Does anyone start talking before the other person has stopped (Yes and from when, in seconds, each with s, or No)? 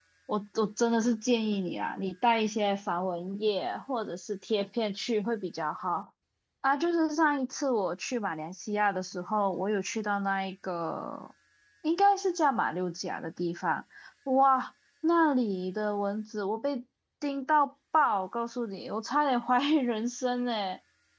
No